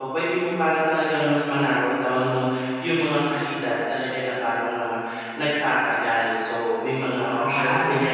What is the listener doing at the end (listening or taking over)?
listening